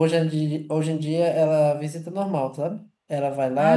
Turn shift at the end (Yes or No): No